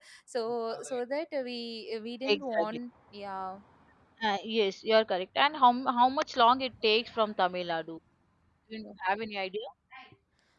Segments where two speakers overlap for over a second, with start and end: none

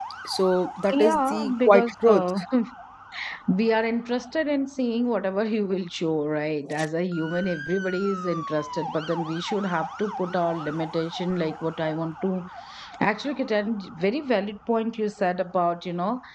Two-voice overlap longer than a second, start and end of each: 0.9-2.2

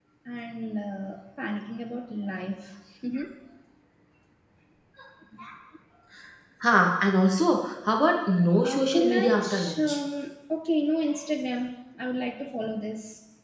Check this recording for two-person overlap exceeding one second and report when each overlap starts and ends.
8.6-10.0

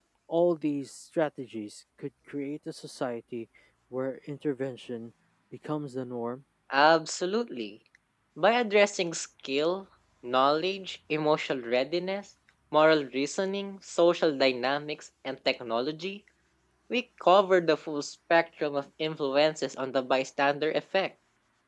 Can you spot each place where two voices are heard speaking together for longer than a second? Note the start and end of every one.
none

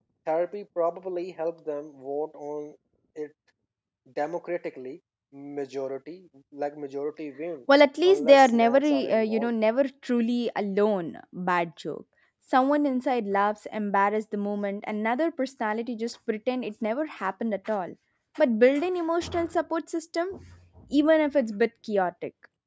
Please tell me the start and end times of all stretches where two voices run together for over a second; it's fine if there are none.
7.7-9.5

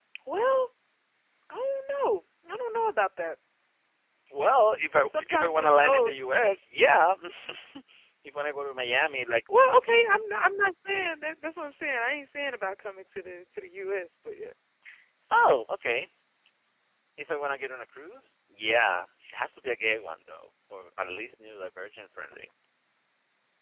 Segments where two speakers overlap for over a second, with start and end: 4.9-6.1

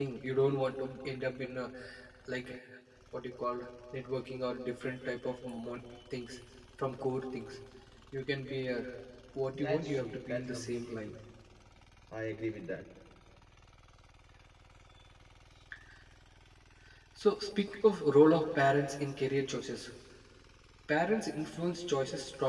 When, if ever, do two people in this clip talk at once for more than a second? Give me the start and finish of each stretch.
9.6-11.1

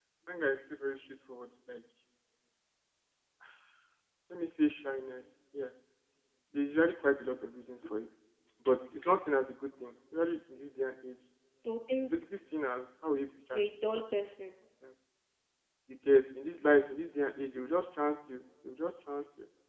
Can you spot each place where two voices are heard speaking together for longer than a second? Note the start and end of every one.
none

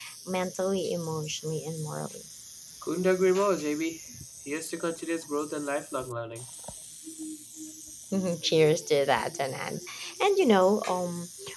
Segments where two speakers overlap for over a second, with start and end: none

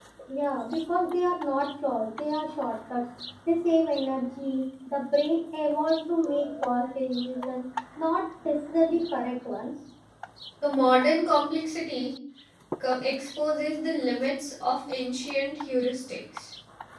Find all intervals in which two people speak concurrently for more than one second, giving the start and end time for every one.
none

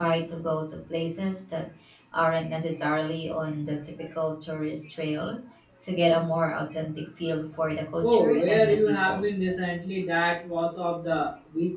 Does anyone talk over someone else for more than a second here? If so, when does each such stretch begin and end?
8.0-9.3

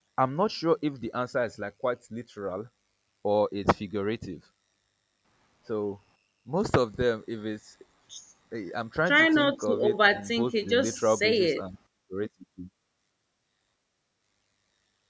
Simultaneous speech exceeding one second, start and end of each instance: 9.1-11.6

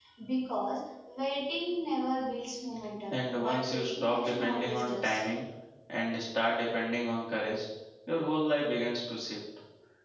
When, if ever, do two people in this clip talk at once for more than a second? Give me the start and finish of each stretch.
3.1-5.2

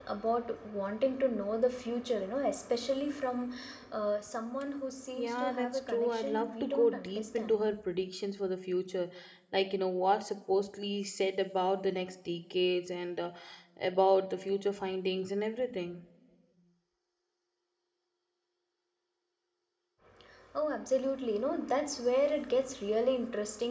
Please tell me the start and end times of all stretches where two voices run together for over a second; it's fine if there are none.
5.2-7.6

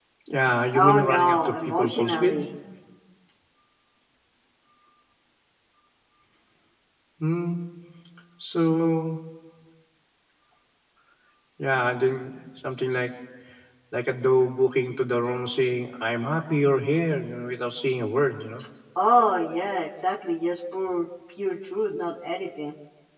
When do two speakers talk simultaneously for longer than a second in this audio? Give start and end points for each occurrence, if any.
0.7-2.4

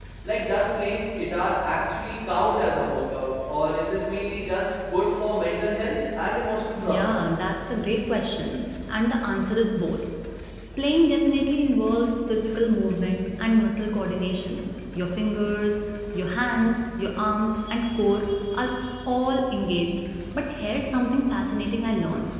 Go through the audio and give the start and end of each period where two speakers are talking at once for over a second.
none

